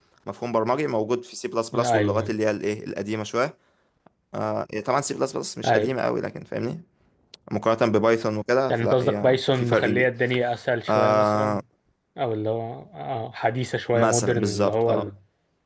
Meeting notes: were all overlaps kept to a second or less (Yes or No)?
No